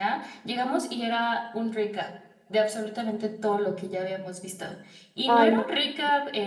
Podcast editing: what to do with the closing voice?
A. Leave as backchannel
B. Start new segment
A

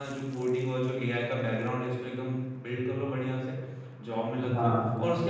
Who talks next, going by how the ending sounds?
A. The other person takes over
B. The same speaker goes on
B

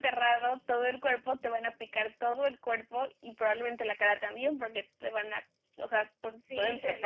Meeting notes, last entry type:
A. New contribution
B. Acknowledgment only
A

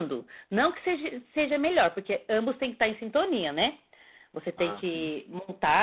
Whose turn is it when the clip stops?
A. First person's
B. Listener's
A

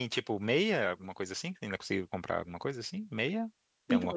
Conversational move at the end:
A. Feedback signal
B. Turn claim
B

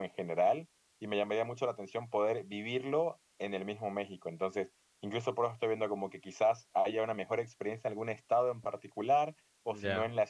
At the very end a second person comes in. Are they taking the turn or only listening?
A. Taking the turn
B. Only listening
B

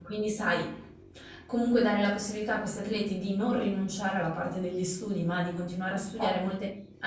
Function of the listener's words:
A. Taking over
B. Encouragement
B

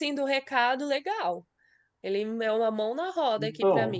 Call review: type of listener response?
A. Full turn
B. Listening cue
B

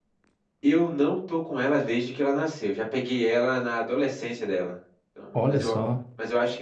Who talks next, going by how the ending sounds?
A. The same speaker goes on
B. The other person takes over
A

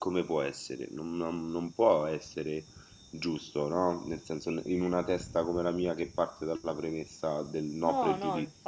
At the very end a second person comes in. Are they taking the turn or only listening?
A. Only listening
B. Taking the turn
B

